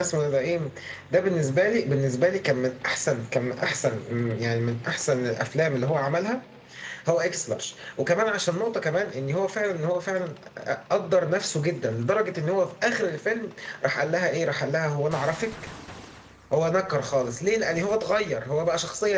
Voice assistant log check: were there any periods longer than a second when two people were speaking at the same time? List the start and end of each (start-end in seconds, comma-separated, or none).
none